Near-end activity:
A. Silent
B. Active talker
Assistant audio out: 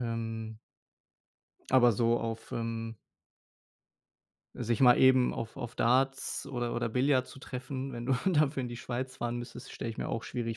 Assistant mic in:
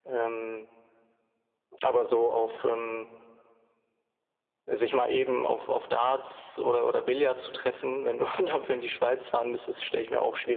A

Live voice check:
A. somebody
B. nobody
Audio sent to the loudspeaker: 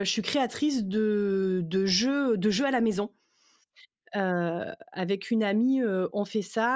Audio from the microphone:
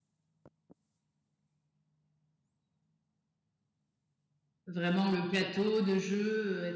A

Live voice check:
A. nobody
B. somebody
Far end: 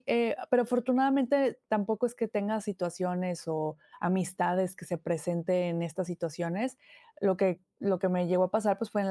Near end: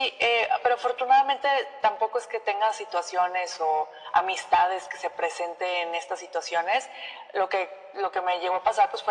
A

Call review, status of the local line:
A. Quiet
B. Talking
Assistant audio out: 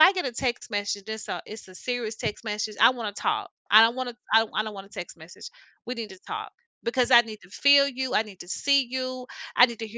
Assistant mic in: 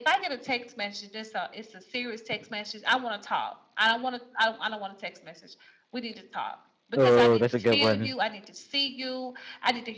B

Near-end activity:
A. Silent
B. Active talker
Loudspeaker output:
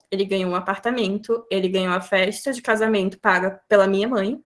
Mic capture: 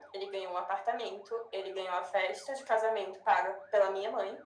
A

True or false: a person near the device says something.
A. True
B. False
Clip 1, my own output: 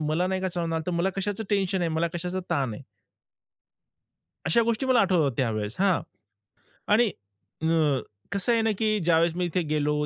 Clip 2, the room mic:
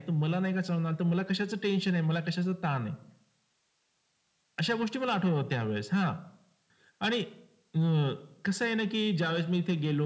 B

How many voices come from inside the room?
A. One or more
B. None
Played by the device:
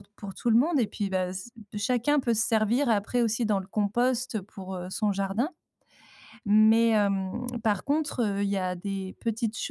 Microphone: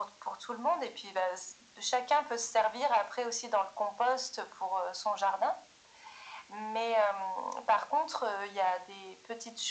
B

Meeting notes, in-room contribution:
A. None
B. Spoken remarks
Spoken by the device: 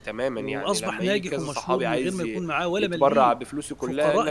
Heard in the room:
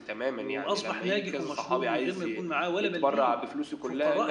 A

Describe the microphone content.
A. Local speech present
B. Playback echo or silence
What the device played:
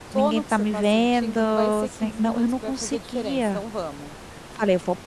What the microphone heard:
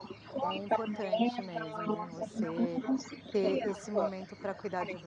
A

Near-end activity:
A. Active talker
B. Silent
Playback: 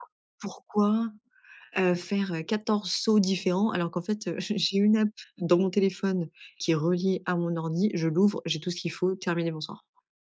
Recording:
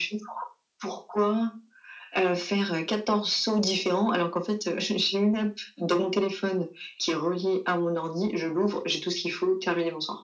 B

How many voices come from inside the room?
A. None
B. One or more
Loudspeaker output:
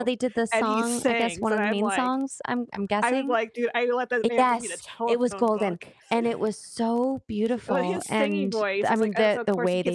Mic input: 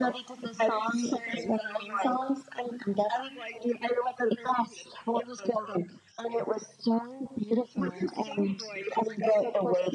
A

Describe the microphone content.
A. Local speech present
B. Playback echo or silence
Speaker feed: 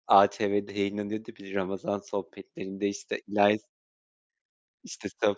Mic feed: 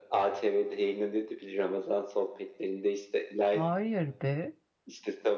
A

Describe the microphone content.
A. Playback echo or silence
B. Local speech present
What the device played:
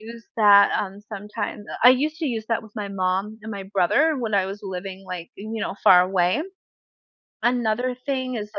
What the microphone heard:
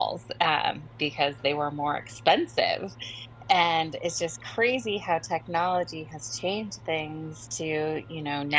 B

